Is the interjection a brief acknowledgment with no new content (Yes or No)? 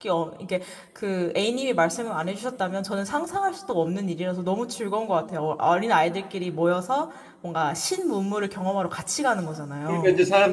No